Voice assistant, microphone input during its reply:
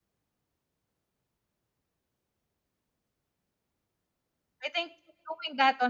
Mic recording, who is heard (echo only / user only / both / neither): user only